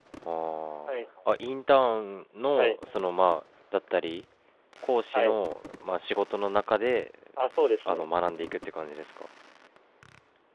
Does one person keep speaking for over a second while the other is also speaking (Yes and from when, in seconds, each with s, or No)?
No